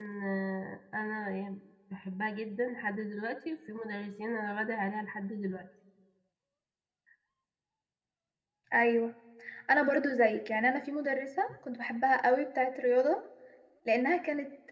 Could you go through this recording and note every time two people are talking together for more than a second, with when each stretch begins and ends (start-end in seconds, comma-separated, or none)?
none